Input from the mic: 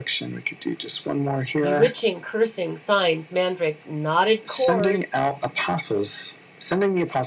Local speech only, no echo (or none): Bewitching, cursing, signs, mandrake, knotted cords.